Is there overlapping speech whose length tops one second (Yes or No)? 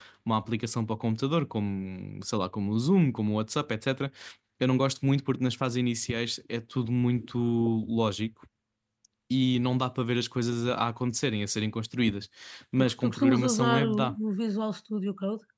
Yes